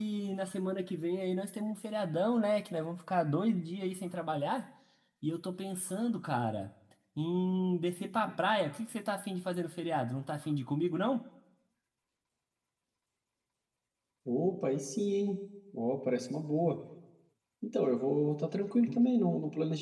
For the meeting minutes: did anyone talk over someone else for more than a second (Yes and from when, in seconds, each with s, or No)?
No